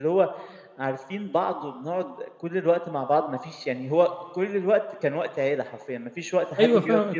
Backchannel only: No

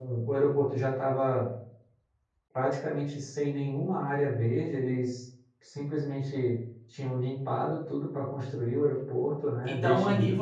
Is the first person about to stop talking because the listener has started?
Yes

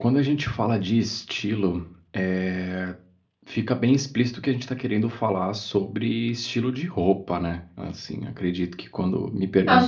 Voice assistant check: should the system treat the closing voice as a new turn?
Yes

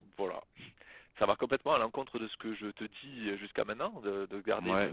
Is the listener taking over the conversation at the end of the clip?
Yes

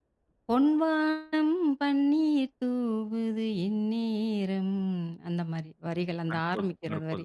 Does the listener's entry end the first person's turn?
Yes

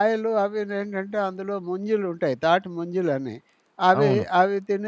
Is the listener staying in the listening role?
Yes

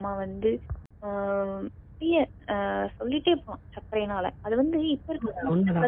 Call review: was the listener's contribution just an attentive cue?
No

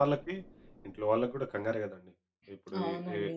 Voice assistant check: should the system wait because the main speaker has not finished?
Yes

